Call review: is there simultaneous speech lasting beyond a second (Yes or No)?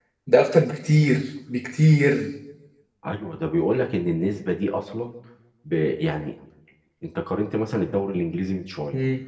No